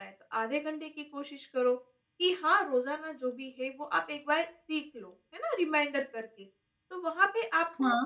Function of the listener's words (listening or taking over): listening